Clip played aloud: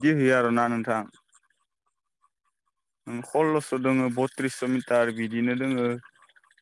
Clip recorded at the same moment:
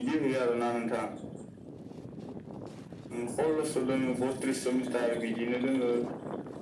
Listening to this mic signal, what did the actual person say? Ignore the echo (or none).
none